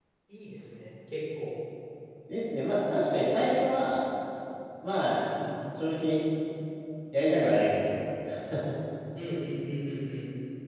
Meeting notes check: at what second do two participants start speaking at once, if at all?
none

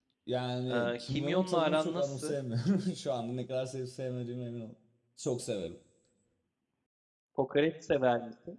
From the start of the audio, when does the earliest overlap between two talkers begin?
1 s

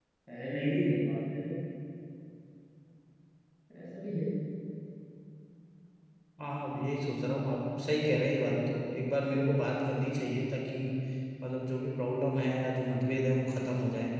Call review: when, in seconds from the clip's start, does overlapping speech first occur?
none

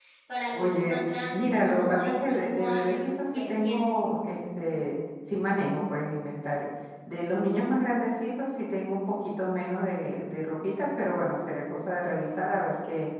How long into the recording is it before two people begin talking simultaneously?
1 s

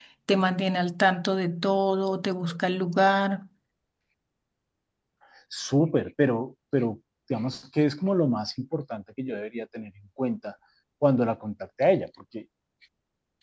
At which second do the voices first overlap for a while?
none

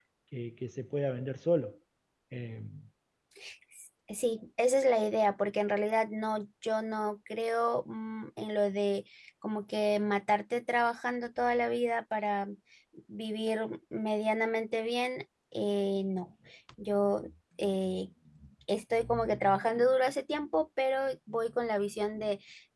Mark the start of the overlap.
none

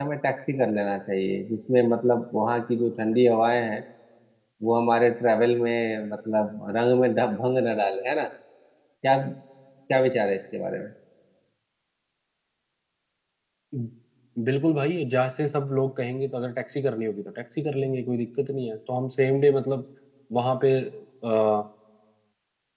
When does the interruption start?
none

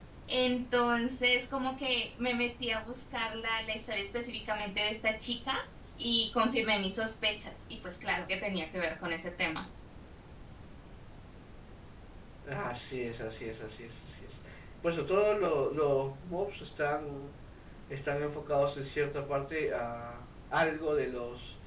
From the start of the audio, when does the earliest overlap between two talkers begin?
none

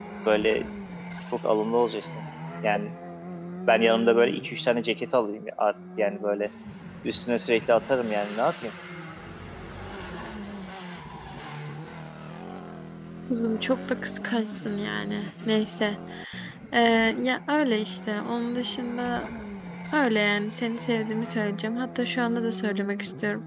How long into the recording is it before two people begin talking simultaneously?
none

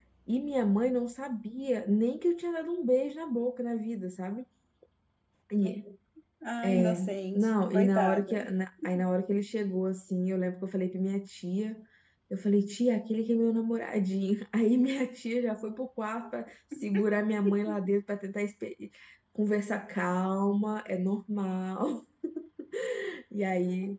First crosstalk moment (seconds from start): 7 s

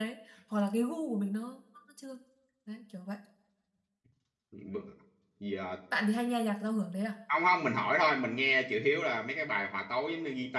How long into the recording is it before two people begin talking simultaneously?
none

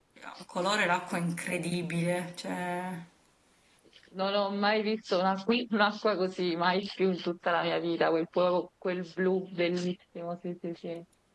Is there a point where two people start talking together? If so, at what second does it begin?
none

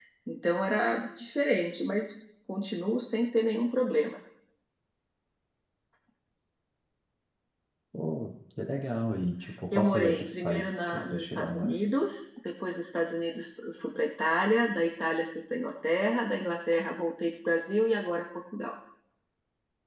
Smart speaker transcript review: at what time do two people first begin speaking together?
10 s

